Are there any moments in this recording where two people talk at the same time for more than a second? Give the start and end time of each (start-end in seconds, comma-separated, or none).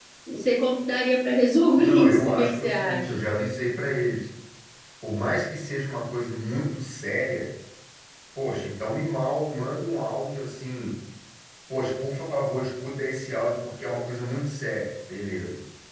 1.7-3.1